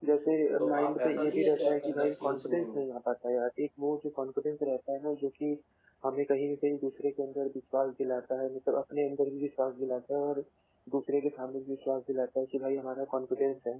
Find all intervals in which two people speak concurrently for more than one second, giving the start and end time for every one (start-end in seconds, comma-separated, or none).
0.7-2.8